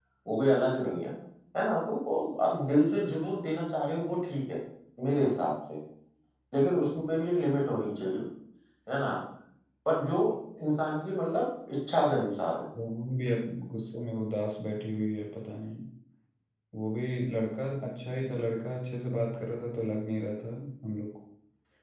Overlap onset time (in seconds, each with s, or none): none